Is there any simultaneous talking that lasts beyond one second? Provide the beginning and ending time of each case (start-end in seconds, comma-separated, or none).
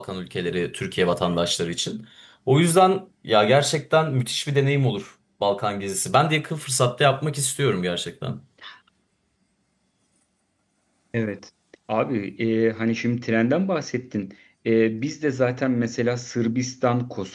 none